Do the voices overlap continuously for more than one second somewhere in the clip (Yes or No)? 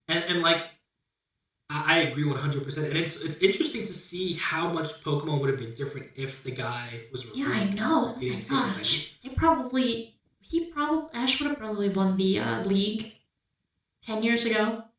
Yes